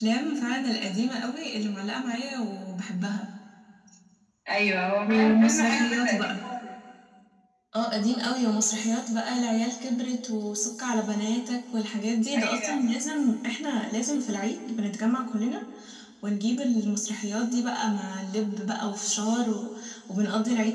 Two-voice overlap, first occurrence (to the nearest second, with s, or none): 5 s